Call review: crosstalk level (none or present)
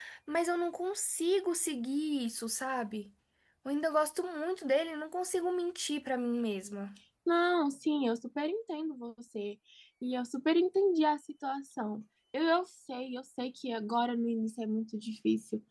none